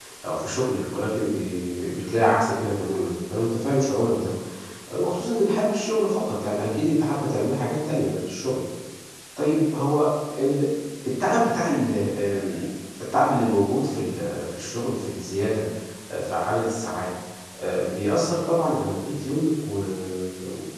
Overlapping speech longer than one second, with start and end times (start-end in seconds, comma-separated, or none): none